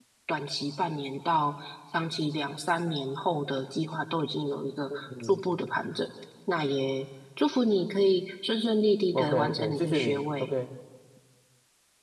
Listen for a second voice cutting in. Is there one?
Yes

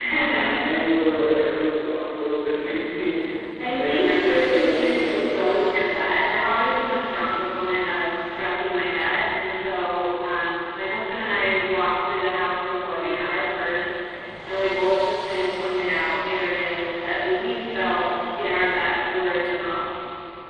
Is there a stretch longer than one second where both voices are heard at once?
Yes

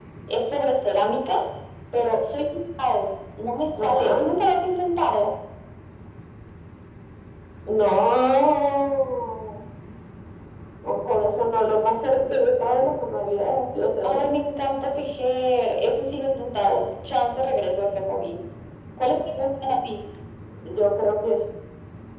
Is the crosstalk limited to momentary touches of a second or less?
Yes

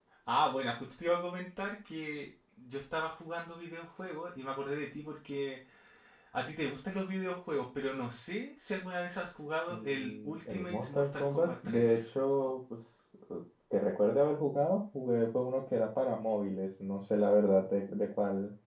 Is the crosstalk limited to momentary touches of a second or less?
No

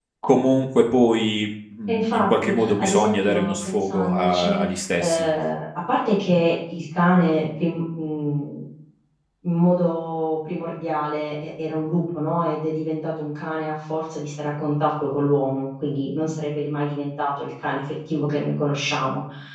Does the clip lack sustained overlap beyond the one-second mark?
No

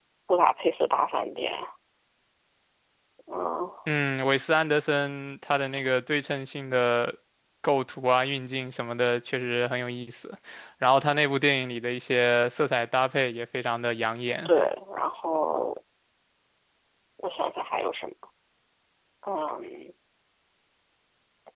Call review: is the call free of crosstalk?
Yes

